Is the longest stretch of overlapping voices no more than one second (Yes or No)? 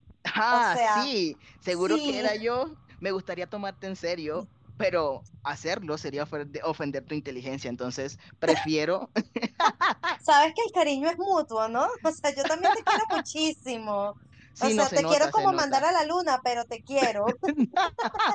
No